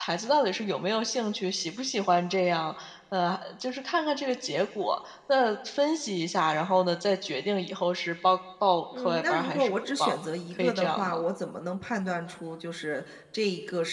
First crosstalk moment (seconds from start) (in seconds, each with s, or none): 8.9 s